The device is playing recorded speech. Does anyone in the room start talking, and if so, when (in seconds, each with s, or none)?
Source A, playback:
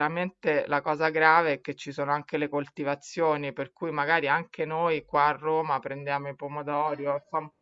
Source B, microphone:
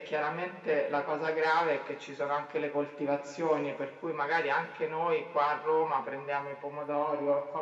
none